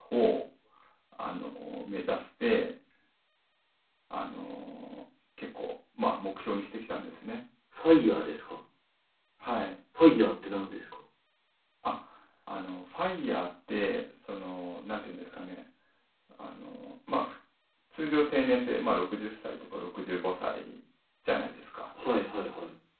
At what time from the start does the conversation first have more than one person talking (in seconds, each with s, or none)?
none